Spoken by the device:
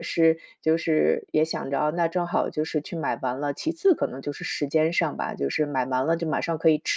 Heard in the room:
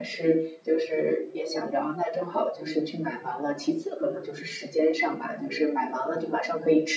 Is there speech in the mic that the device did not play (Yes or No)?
No